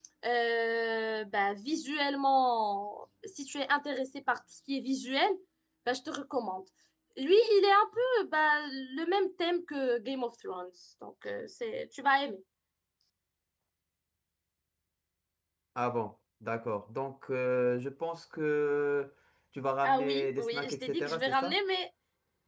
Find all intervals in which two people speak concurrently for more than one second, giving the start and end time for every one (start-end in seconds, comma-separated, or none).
19.8-21.6